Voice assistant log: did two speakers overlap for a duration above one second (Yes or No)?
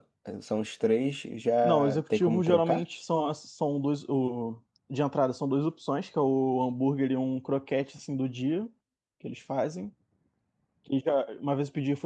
Yes